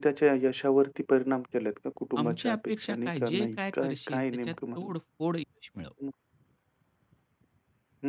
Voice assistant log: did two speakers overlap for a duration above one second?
Yes, from 2.2 s

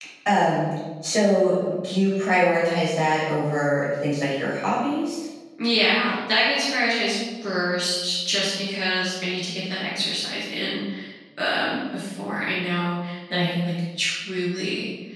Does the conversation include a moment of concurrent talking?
No

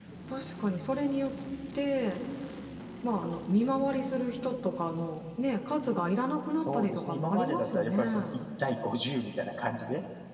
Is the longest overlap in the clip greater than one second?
Yes, from 6.5 s

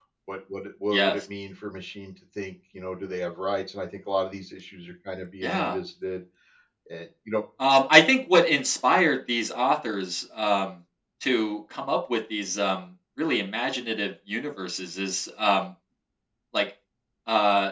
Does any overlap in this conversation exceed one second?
No

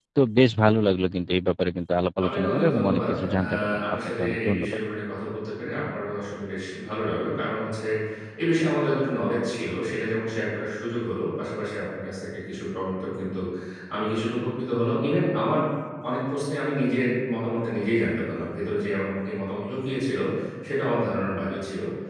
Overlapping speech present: Yes, from 2.2 s

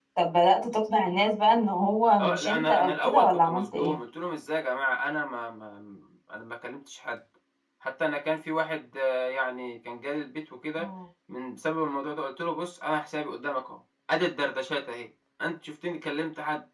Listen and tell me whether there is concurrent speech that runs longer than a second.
Yes, from 2.2 s

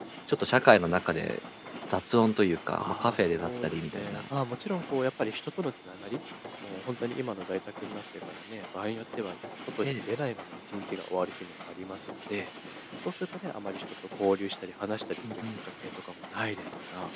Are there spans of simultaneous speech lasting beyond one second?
Yes, from 2.8 s

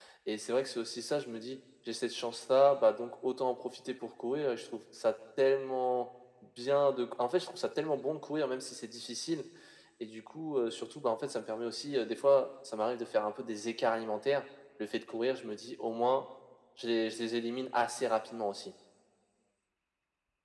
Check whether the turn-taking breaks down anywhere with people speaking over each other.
No

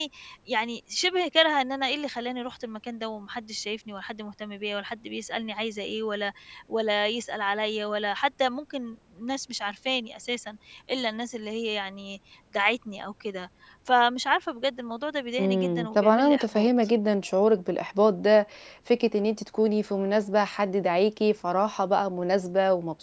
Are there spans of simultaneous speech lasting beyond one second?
Yes, from 15.4 s

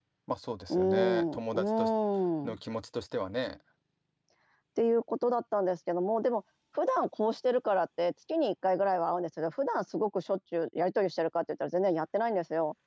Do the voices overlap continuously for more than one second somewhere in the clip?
Yes, from 0.7 s

